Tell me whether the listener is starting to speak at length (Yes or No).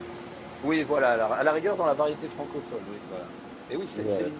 No